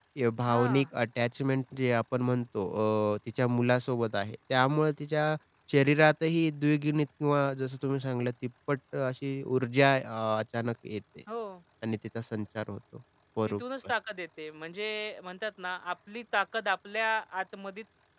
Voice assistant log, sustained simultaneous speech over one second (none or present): none